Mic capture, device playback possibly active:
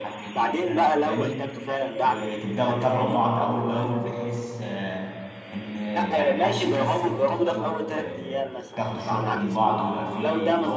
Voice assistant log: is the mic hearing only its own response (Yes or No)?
No